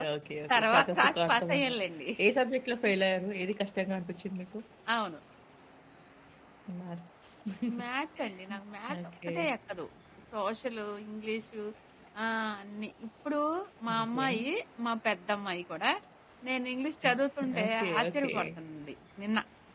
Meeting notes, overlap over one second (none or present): present